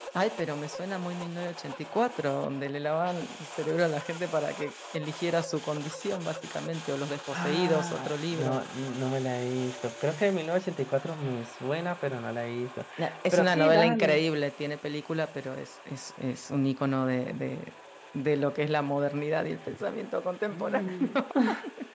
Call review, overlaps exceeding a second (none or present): present